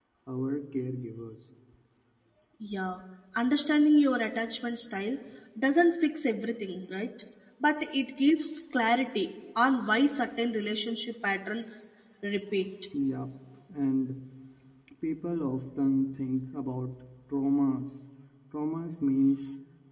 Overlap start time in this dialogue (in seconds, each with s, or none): none